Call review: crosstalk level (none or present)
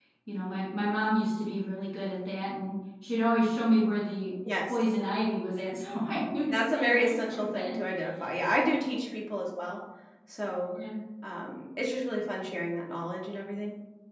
present